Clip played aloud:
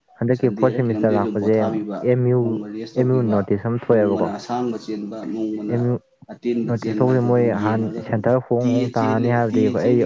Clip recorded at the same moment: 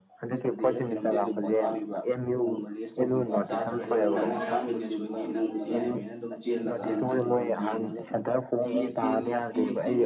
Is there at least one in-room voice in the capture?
Yes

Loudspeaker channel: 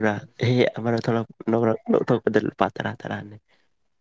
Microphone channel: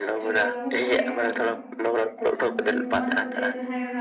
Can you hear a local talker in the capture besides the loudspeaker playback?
Yes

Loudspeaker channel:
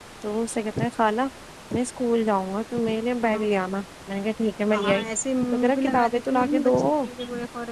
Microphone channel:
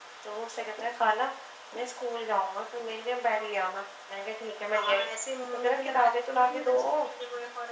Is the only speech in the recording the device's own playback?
Yes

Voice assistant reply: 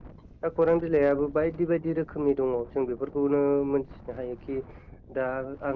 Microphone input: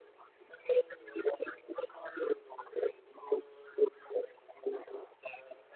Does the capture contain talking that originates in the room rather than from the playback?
No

